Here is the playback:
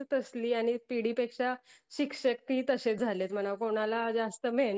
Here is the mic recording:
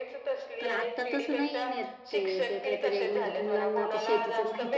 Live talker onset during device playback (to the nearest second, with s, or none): 1 s